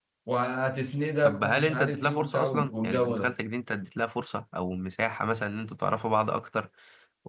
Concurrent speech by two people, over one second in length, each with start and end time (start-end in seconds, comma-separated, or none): 1.2-3.4